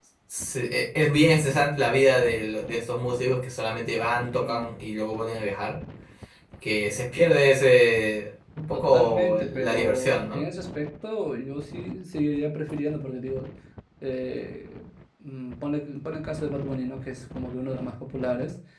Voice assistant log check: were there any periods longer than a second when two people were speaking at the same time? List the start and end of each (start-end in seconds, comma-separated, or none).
8.7-10.4